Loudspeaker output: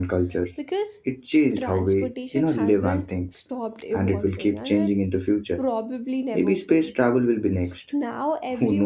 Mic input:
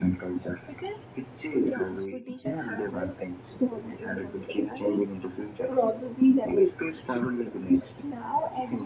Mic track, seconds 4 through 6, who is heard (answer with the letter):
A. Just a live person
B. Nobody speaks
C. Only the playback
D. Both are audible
C